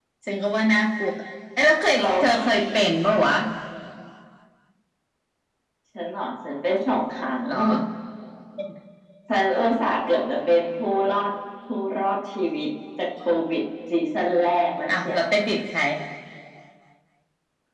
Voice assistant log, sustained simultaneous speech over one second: none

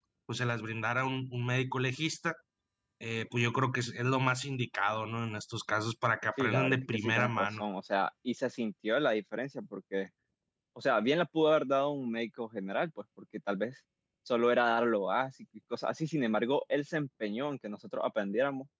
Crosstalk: present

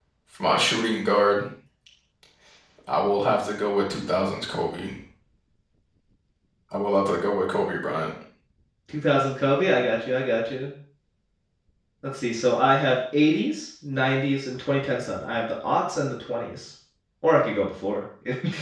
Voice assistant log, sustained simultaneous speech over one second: none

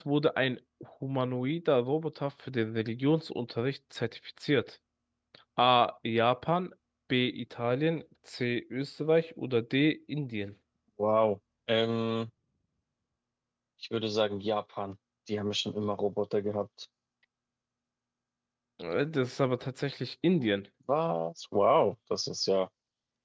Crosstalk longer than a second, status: none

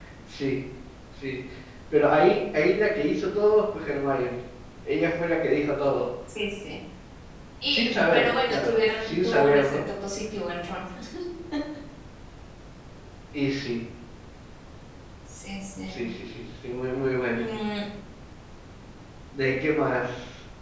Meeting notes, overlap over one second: present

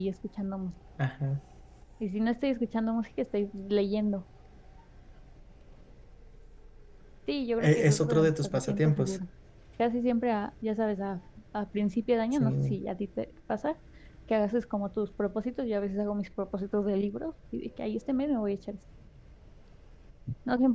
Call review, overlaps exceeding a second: present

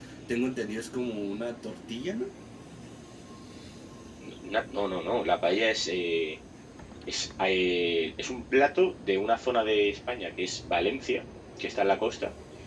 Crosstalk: none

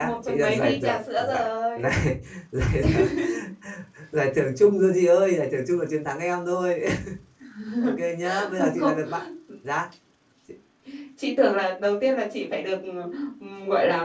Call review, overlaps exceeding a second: present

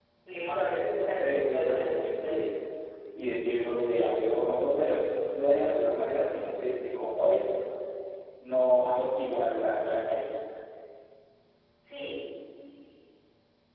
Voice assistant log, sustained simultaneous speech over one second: present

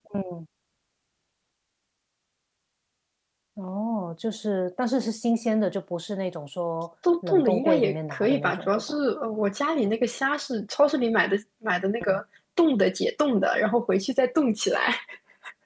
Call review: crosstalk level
present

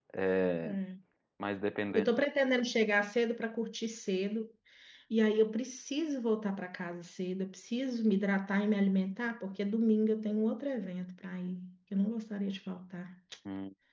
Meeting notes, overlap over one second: none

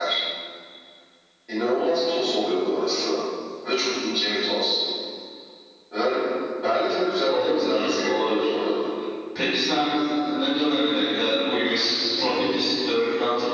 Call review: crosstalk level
present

